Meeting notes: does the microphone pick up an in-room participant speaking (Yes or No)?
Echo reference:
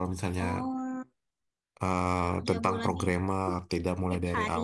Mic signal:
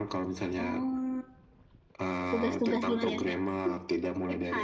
Yes